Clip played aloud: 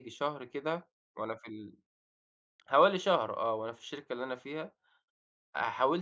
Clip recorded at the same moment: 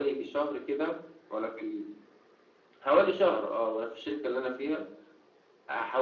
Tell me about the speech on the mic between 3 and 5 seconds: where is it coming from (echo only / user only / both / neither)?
echo only